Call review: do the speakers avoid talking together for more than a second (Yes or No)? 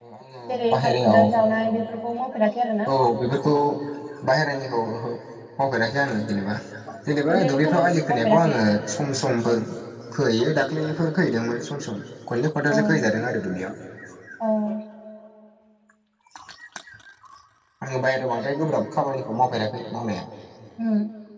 No